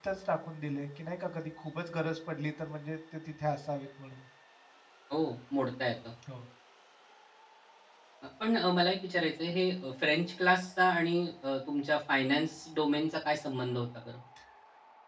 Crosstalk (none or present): none